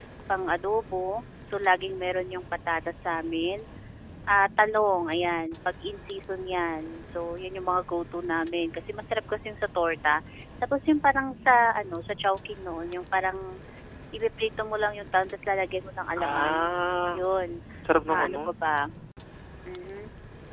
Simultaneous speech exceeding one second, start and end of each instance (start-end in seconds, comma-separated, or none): none